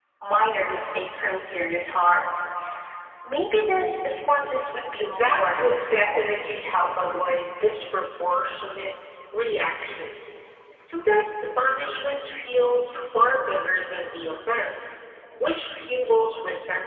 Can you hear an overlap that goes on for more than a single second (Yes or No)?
Yes